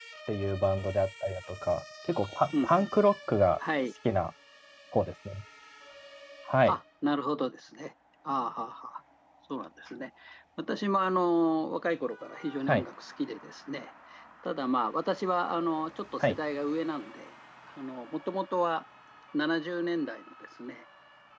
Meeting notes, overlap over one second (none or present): none